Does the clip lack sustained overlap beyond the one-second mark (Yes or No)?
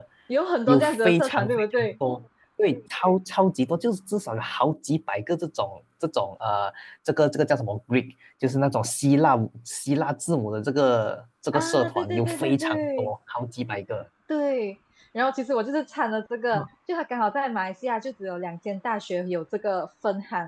No